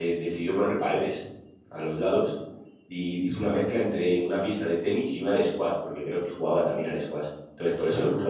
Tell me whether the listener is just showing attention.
Yes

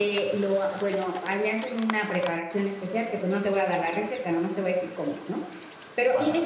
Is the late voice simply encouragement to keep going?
Yes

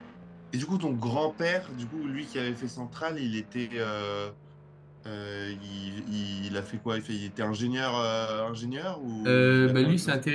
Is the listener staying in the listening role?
No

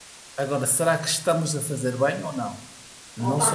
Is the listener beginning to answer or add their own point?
Yes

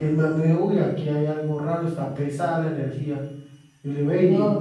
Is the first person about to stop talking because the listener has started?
No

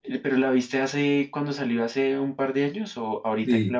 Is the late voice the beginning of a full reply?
Yes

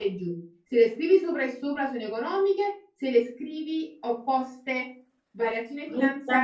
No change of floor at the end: Yes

